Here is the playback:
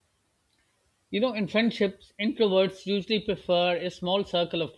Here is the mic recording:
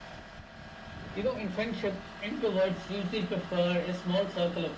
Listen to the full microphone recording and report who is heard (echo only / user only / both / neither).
echo only